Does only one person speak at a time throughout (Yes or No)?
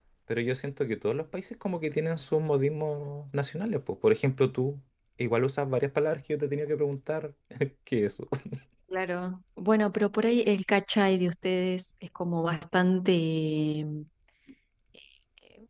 Yes